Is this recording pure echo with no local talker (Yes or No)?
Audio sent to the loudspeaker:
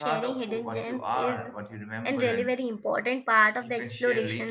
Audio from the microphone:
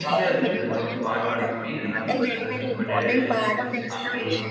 No